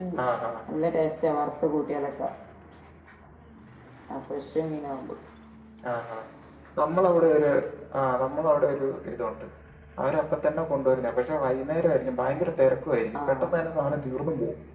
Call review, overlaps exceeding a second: none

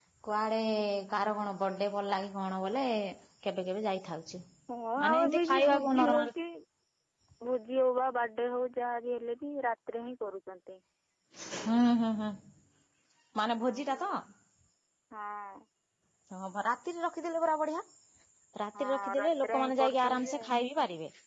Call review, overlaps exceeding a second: present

